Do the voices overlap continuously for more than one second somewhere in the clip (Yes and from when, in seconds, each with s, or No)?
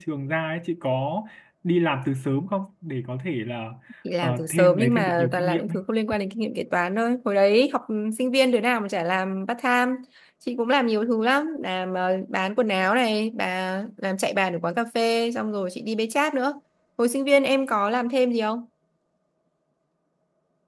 Yes, from 4.2 s